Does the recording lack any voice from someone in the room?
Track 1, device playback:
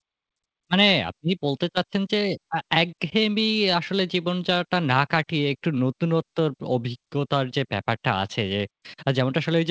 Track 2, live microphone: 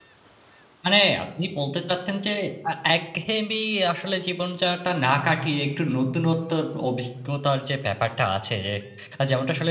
Yes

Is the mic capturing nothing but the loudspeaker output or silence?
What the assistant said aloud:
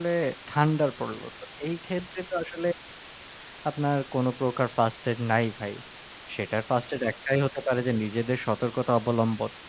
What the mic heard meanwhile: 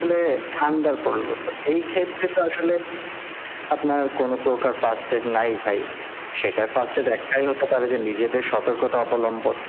Yes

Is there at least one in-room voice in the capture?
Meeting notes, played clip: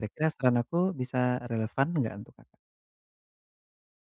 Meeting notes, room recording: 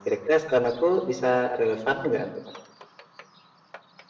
No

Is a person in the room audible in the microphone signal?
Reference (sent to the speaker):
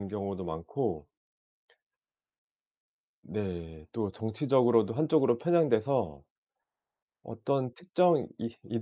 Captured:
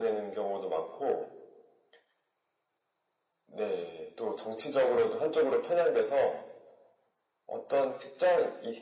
No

